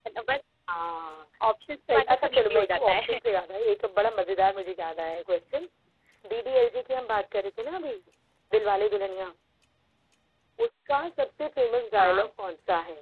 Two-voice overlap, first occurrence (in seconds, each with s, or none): 1.9 s